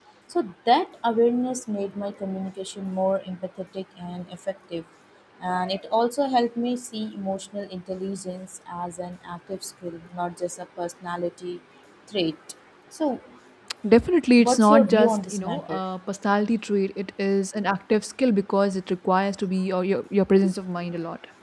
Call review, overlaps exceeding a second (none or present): present